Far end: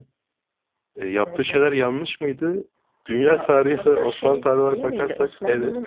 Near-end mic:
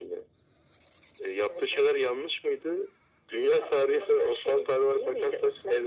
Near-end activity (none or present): none